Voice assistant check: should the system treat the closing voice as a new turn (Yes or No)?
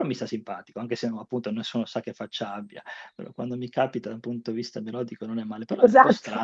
Yes